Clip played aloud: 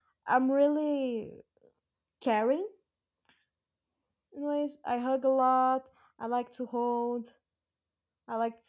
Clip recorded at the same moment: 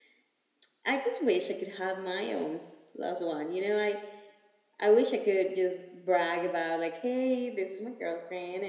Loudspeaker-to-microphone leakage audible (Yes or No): No